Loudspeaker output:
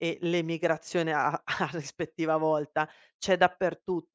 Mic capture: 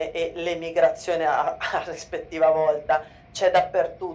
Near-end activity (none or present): none